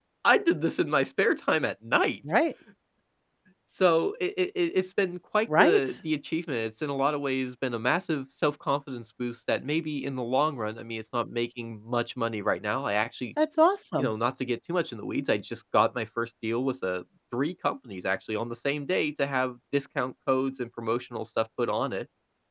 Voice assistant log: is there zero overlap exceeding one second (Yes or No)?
Yes